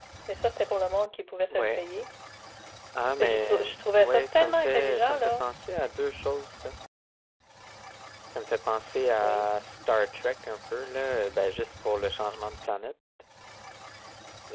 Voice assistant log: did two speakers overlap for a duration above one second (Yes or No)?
Yes